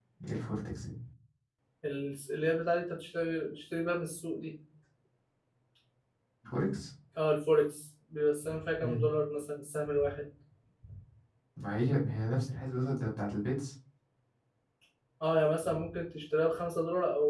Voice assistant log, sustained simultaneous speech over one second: none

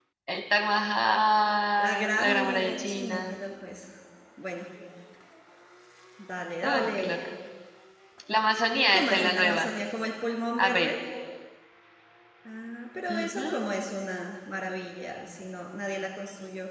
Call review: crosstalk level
present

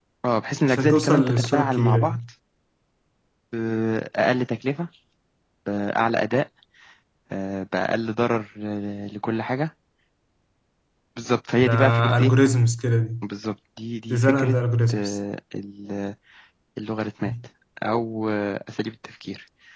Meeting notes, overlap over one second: present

